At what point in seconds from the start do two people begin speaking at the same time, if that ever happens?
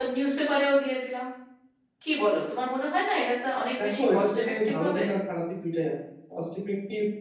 4 s

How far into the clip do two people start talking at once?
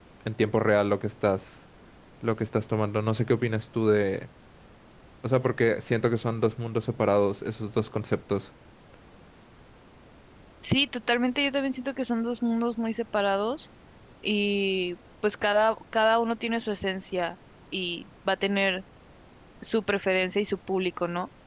none

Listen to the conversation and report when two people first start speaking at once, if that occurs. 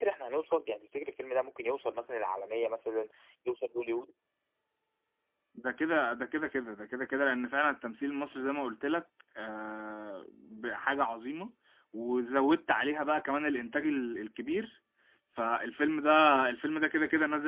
none

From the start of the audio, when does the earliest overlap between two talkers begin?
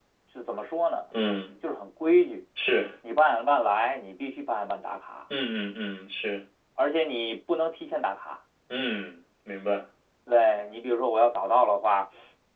none

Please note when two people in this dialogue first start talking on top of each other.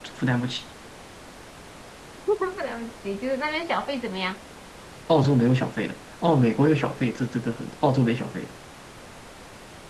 none

